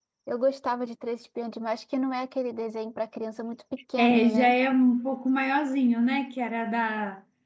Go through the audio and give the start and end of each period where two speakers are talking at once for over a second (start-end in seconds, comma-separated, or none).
none